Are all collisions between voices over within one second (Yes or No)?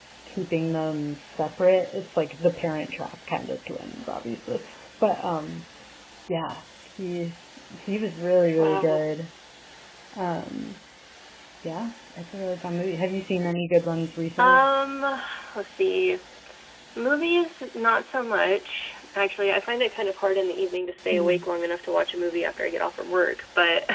Yes